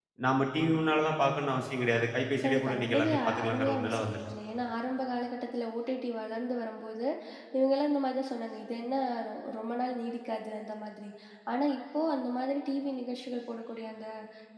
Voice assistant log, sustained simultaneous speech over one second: present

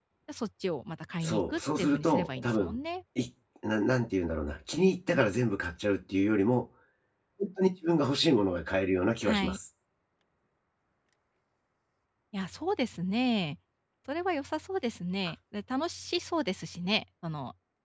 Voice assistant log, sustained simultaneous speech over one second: present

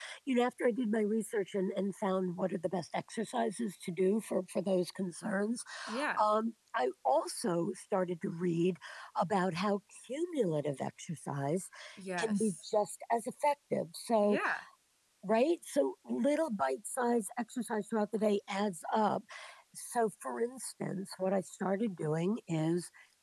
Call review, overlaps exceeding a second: none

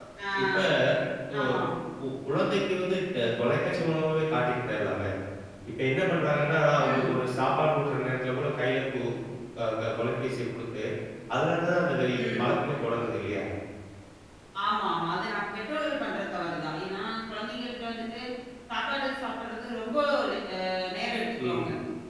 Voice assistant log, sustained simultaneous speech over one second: none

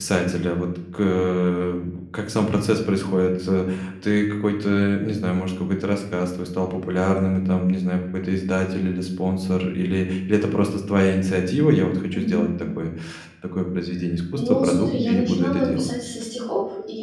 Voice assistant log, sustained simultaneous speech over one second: present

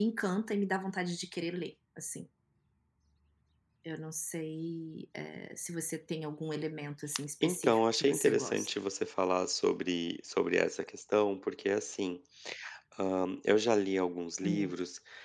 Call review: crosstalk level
present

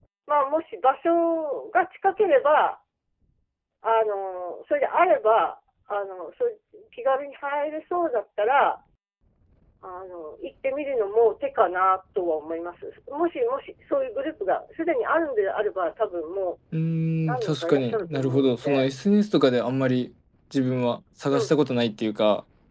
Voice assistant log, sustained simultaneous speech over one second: present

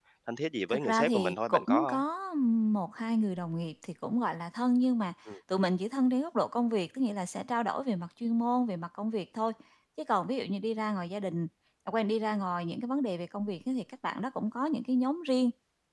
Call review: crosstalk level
present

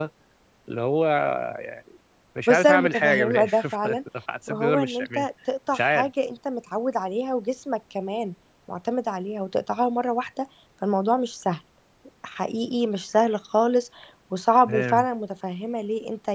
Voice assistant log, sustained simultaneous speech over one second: present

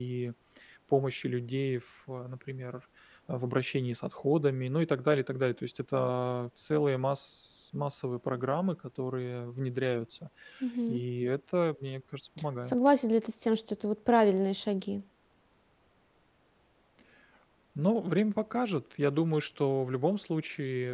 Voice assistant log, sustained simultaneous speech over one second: none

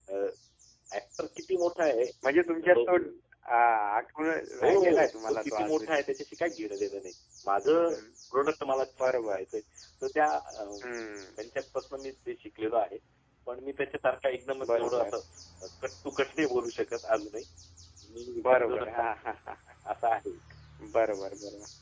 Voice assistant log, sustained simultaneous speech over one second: present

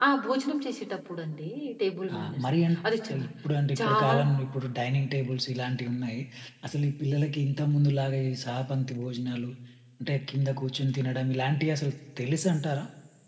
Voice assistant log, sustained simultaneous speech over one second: none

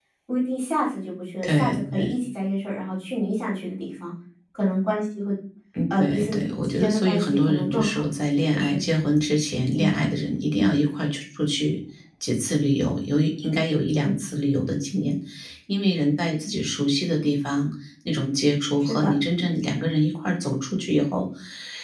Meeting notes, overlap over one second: present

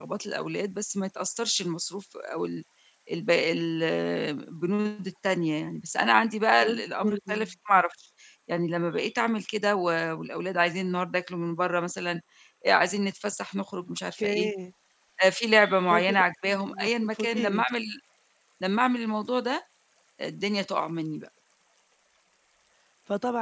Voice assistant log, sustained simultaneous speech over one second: present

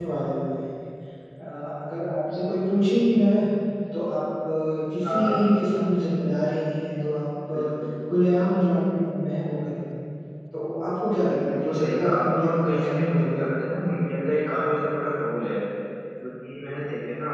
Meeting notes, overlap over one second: present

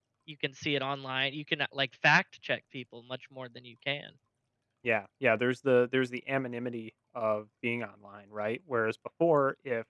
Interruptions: none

